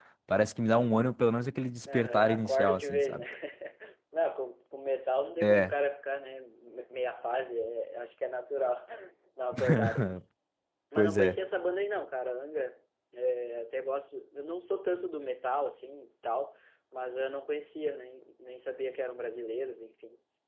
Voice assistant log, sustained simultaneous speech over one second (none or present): present